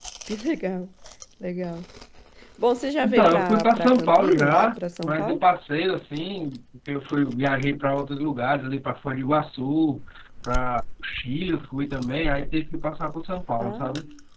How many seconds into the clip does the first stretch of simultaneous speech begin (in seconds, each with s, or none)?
3.0 s